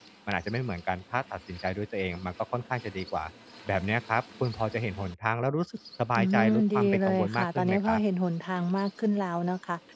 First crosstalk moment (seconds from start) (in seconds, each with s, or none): 6.2 s